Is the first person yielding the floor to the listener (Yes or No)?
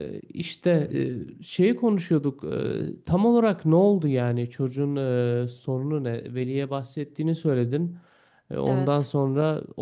No